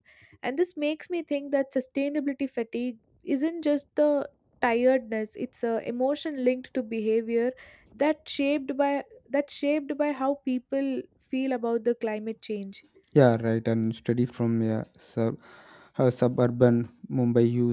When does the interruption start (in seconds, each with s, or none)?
none